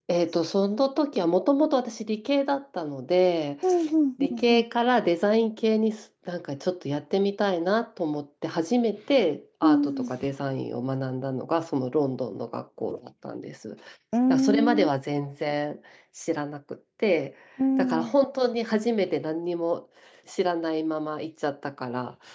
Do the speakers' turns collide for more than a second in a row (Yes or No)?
No